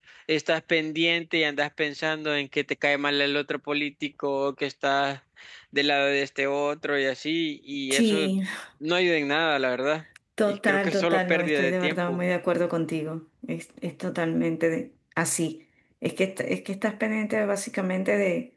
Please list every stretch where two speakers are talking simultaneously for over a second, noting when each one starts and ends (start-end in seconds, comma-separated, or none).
10.5-12.2